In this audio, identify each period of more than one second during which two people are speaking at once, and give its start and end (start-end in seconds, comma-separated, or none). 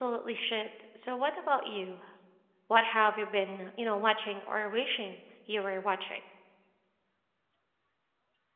none